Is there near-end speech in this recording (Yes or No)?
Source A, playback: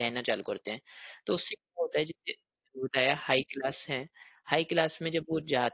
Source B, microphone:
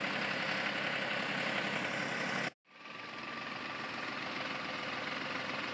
No